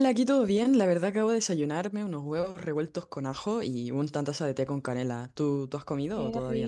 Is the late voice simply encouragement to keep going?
No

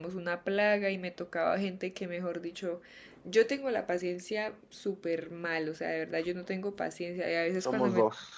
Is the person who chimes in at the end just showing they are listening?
Yes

